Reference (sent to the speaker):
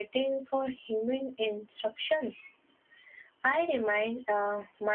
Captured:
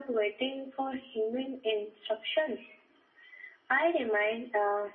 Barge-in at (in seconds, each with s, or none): none